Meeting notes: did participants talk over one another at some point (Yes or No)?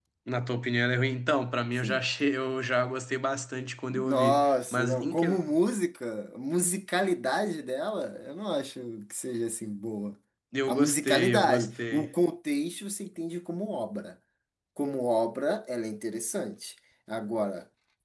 Yes